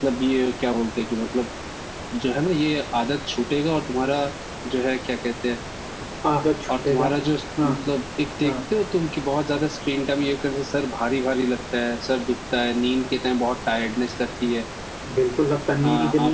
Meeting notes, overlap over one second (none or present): none